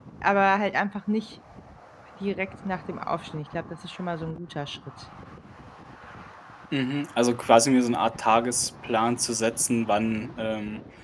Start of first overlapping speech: none

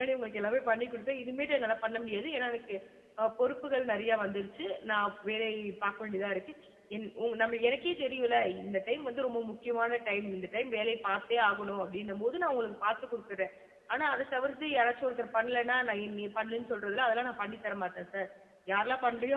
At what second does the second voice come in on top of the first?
none

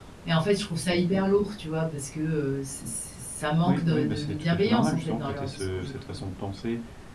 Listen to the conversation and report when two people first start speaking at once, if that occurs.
3.6 s

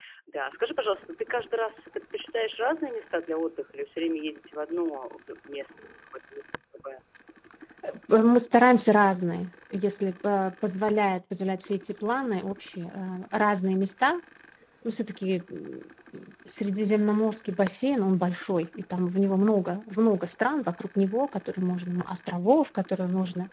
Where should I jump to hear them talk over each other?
none

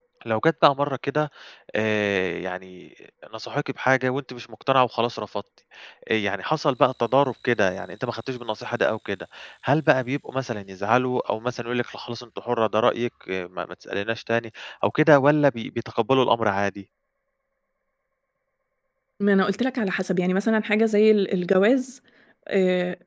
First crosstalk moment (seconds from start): none

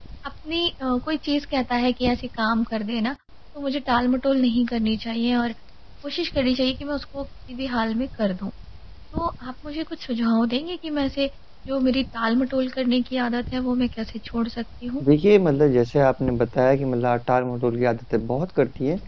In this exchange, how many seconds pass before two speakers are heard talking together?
none

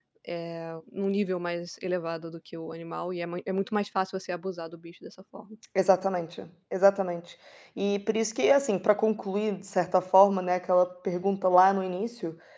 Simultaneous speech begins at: none

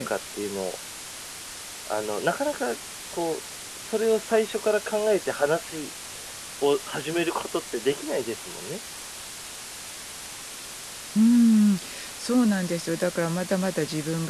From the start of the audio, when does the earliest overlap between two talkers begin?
none

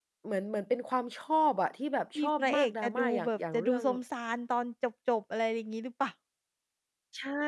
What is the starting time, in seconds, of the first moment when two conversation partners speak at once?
2.1 s

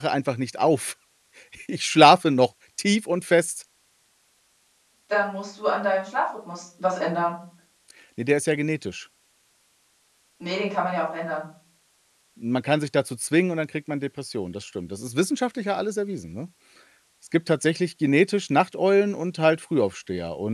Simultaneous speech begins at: none

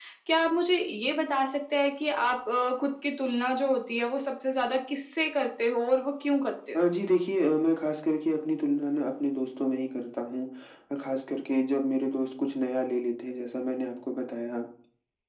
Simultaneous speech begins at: none

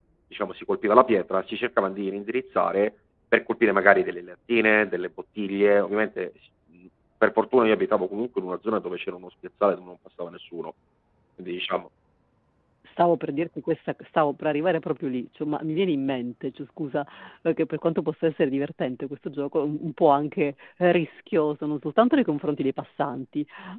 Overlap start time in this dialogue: none

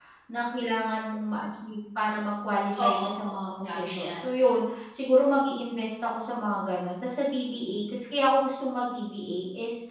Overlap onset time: 2.8 s

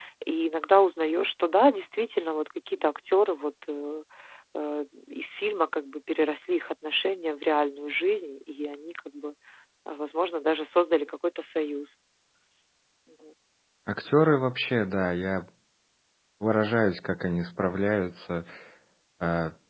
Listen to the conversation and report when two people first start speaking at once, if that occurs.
none

